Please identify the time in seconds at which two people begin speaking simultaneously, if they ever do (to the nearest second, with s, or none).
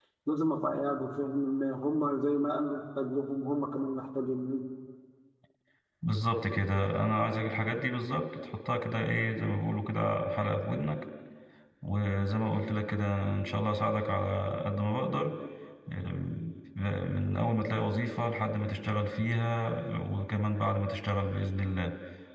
none